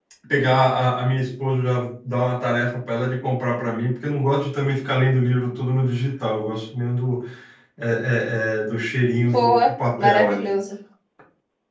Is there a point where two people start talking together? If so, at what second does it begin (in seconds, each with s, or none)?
9.2 s